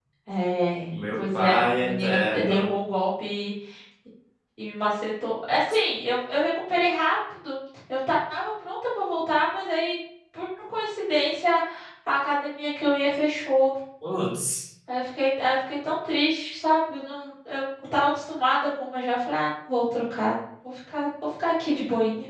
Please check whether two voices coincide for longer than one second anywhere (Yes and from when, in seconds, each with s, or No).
Yes, from 1.1 s